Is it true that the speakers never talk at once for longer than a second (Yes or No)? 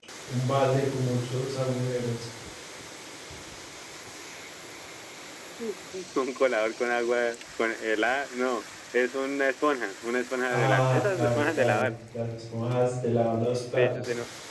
No